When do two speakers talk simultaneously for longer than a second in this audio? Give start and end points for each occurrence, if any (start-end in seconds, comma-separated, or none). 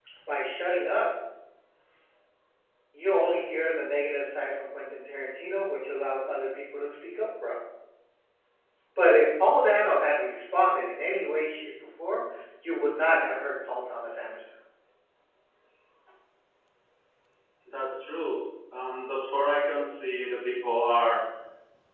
none